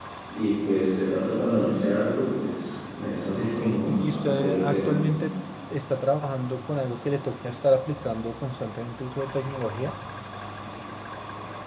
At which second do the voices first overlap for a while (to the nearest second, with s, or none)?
3 s